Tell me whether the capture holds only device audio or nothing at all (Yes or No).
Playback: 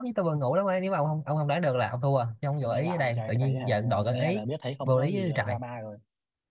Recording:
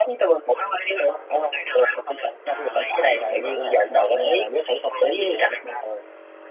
No